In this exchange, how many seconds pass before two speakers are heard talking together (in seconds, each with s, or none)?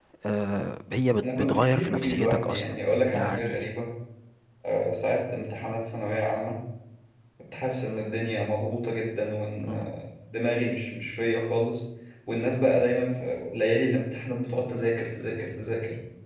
1.4 s